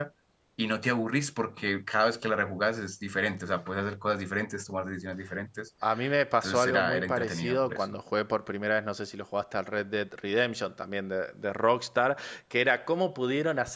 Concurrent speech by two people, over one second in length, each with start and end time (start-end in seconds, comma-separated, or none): 6.4-8.0